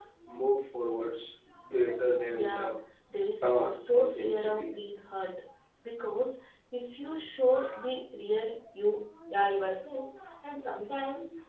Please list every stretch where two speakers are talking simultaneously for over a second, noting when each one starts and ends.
3.4-4.7

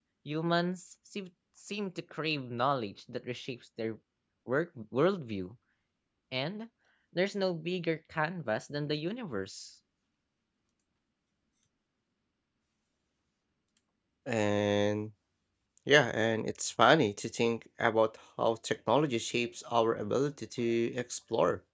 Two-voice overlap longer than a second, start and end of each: none

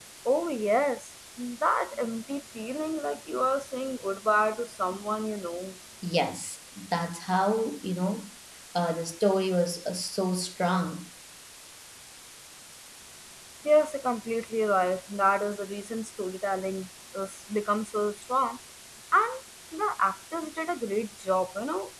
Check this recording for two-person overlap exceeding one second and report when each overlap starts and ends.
none

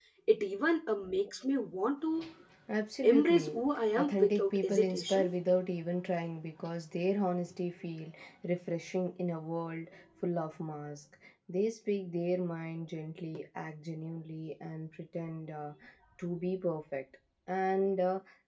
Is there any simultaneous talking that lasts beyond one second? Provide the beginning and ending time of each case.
4.0-5.3

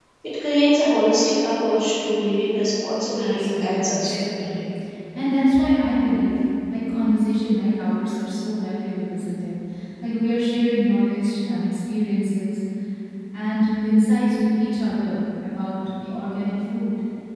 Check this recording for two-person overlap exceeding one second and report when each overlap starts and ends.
3.1-4.6

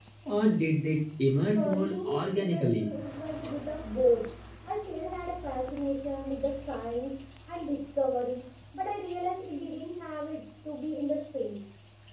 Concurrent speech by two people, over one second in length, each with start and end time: 1.6-2.9

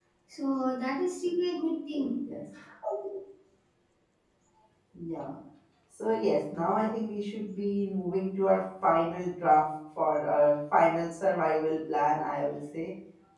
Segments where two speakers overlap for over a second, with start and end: none

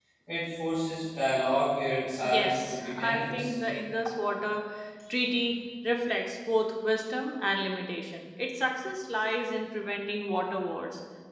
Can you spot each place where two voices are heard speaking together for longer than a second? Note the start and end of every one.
2.2-3.5

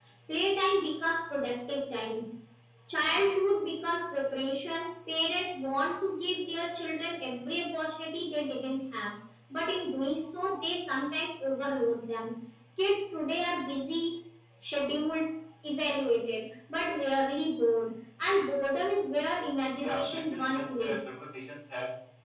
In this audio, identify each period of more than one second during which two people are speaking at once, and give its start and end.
19.8-21.0

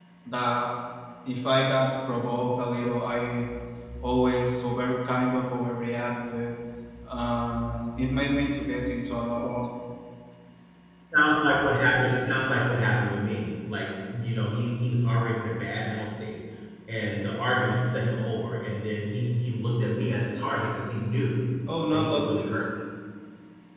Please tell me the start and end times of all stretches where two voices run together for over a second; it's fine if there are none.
none

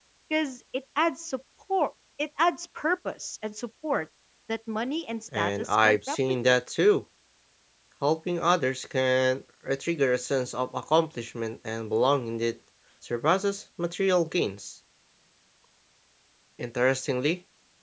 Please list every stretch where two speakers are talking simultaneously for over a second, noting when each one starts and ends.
5.3-6.6

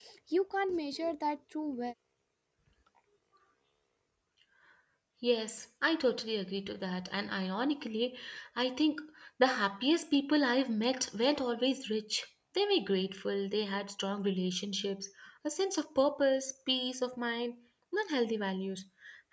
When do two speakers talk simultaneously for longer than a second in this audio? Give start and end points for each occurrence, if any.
none

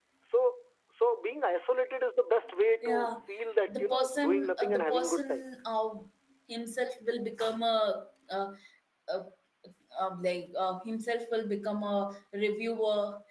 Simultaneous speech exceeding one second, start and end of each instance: 3.8-5.5

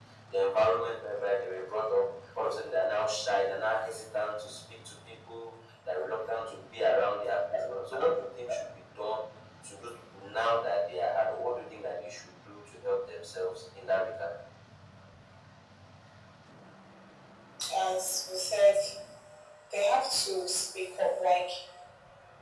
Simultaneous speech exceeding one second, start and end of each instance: none

